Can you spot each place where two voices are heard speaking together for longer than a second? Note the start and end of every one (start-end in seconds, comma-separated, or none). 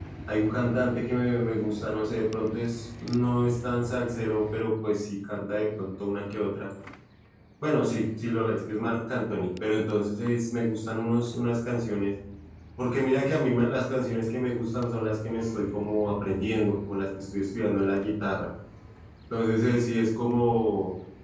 none